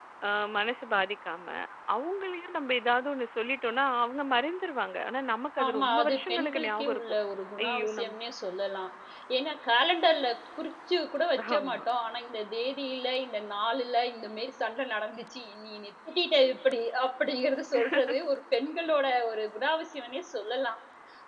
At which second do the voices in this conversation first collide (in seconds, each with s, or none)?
5.6 s